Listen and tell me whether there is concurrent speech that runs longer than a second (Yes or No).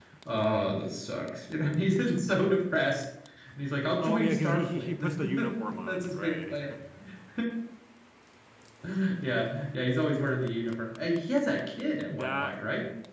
Yes